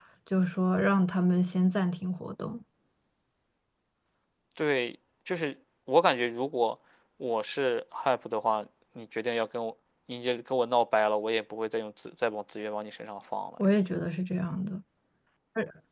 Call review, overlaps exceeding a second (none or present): none